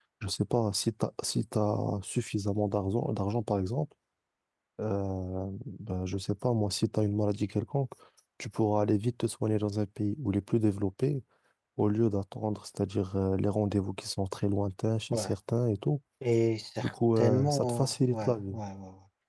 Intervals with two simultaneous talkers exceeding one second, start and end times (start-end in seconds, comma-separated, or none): 16.8-18.6